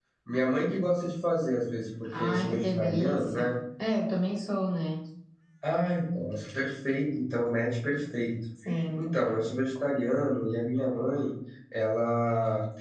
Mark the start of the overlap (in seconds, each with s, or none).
2.0 s